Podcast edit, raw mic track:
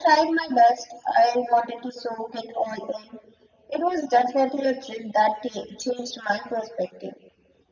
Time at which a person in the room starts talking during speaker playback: none

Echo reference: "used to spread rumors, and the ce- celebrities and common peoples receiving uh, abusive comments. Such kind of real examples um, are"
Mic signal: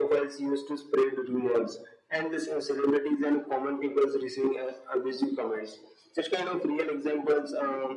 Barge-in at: none

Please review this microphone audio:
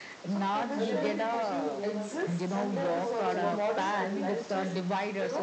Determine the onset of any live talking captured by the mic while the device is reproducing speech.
0.8 s

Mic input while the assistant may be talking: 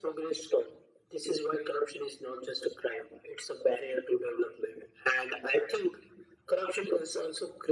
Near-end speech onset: none

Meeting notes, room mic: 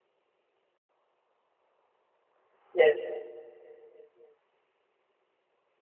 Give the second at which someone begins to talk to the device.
2.7 s

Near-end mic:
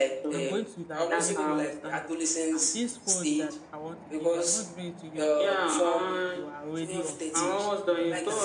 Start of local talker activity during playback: 0.3 s

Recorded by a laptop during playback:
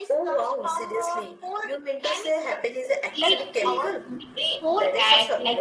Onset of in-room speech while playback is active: 3.2 s

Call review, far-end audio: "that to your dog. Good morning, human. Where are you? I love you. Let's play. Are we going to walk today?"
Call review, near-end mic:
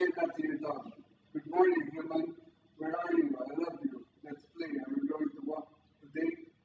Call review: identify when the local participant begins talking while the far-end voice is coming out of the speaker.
none

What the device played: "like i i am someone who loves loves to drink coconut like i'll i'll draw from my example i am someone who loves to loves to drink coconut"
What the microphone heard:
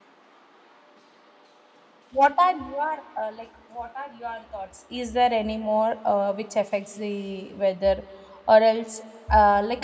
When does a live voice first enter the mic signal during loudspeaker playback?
2.1 s

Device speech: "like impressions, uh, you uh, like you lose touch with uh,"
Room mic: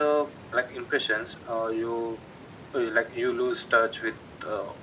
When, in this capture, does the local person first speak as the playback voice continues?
none

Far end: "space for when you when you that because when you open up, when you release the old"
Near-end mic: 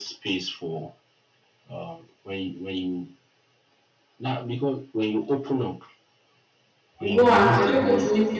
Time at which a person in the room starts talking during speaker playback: 7.1 s

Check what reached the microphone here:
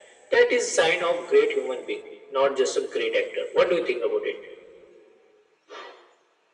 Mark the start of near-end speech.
none

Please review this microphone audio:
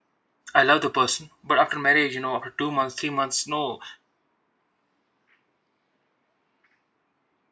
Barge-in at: 0.5 s

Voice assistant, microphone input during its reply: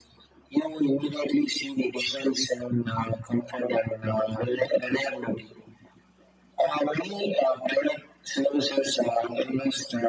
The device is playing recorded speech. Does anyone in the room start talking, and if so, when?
none

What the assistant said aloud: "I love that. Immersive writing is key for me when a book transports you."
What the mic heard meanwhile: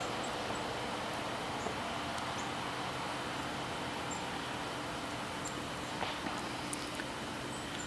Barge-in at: none

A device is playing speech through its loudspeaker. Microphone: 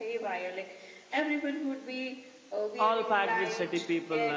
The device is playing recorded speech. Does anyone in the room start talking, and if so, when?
2.8 s

